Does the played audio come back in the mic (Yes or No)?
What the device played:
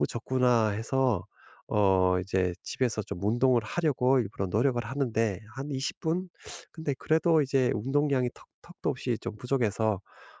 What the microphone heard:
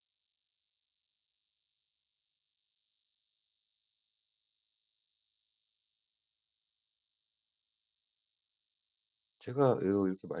No